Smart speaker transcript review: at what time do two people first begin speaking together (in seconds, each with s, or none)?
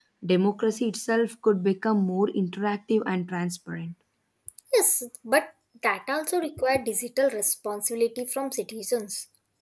none